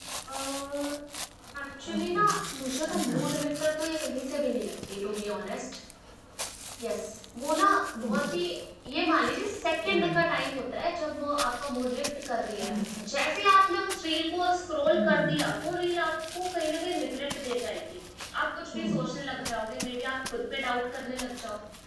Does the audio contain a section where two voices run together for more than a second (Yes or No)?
No